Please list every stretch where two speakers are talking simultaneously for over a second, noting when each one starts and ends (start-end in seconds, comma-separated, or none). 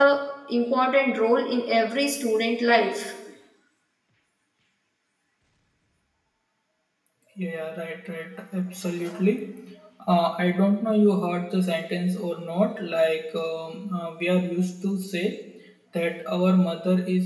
none